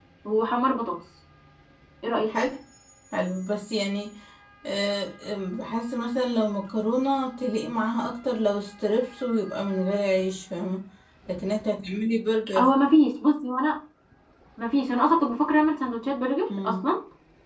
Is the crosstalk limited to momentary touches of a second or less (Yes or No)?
Yes